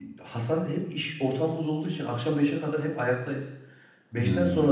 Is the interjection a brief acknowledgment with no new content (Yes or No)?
Yes